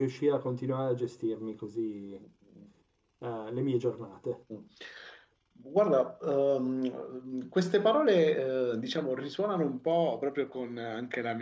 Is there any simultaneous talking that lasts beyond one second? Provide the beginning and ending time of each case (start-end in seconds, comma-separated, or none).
none